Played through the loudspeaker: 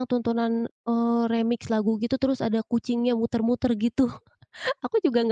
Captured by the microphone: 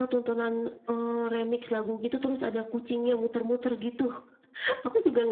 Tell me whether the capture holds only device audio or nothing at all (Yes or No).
Yes